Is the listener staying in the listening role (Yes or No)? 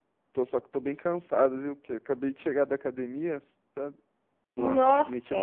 Yes